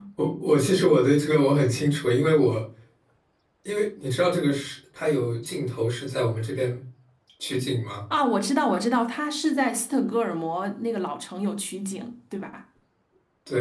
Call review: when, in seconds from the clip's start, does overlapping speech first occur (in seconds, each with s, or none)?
none